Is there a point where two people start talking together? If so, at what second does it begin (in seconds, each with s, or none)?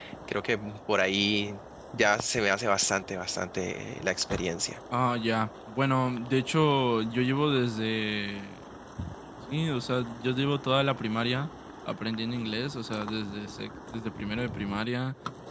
none